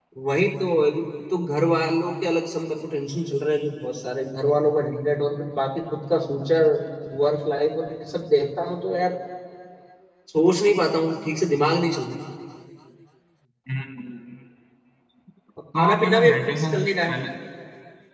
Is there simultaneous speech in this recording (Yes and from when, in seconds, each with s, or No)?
Yes, from 15.7 s